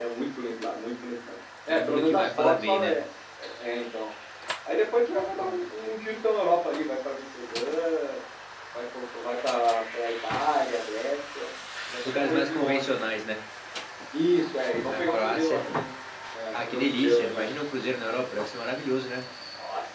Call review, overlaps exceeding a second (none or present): present